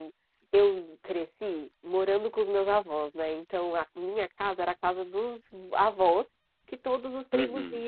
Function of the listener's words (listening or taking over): listening